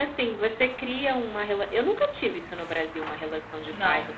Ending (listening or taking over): listening